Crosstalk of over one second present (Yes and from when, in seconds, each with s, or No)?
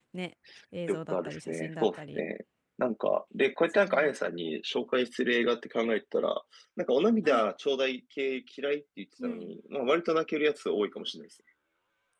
Yes, from 0.9 s